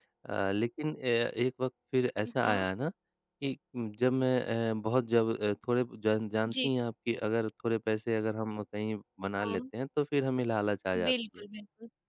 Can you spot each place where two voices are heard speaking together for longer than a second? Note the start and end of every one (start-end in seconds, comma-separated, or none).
none